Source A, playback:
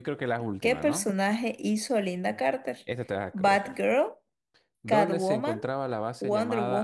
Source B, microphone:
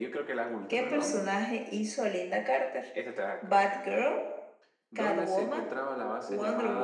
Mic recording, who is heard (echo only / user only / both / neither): echo only